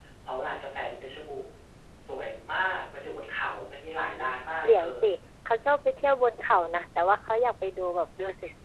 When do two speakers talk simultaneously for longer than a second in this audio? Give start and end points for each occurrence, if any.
none

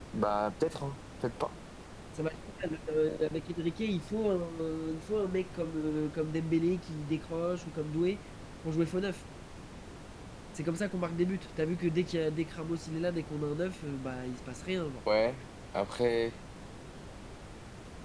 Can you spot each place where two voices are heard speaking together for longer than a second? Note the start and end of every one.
none

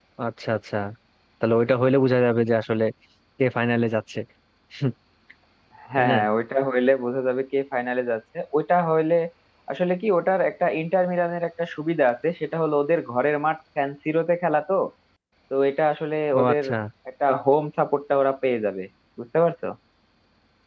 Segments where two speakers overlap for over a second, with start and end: none

